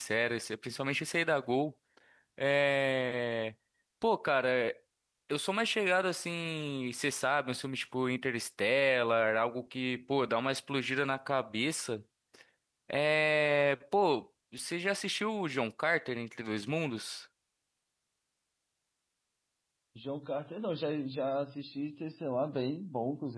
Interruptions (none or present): none